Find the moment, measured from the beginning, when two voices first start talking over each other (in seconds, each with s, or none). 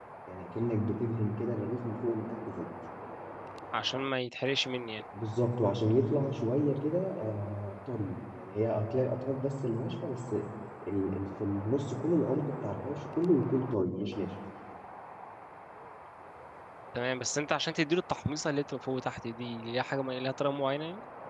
none